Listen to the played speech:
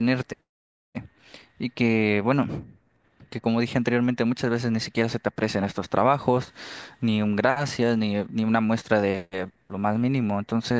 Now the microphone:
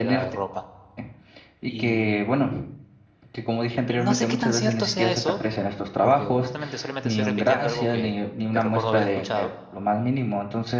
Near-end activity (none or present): present